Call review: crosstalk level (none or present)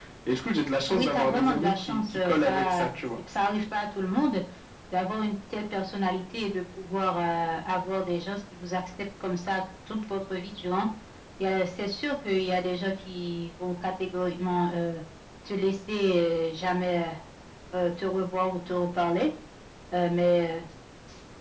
present